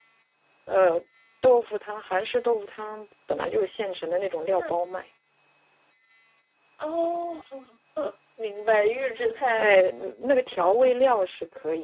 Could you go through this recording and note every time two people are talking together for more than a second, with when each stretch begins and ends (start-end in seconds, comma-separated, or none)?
none